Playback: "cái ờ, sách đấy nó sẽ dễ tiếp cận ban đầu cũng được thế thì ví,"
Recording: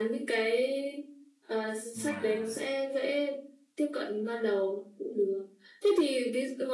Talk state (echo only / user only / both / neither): both